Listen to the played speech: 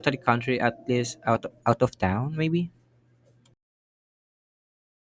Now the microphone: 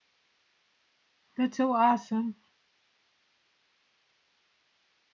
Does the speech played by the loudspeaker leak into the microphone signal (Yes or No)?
No